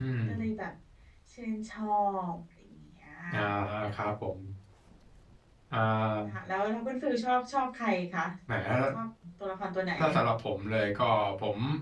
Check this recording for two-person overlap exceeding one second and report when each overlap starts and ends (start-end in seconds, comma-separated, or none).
none